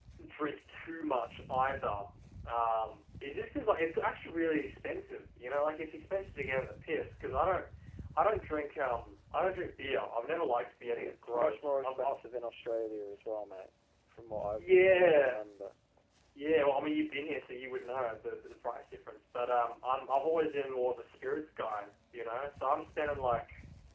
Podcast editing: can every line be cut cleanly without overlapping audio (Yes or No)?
No